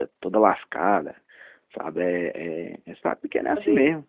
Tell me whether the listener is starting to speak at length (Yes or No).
Yes